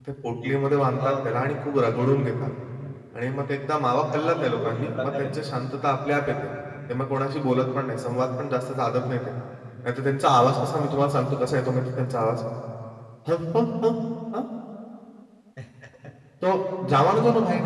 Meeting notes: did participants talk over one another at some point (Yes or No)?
Yes